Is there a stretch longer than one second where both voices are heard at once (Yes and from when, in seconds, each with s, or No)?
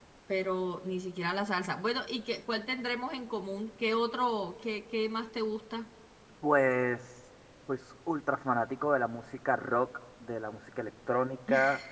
No